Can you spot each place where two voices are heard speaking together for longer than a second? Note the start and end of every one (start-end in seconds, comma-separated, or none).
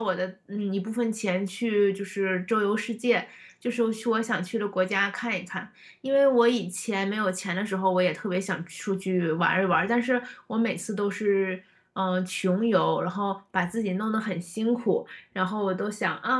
none